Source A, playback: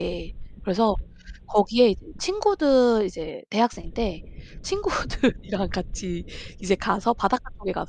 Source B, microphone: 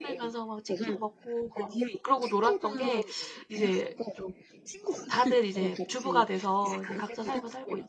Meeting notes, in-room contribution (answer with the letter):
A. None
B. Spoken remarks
B